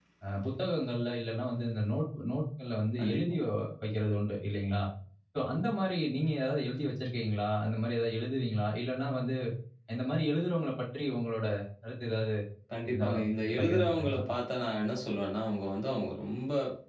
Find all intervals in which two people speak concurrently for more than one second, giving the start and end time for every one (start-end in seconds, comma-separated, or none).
12.9-14.2